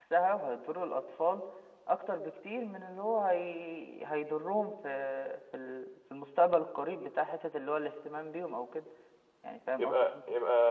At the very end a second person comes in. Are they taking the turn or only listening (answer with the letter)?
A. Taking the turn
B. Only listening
A